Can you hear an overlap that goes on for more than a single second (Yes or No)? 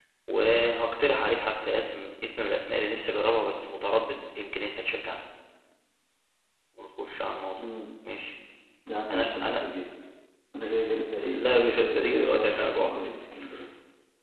Yes